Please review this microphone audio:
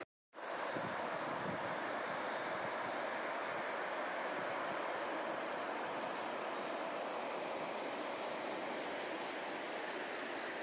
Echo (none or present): none